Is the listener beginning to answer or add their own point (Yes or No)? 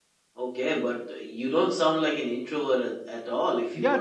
Yes